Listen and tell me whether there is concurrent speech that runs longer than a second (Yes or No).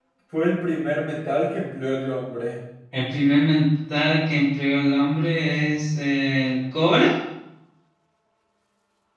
No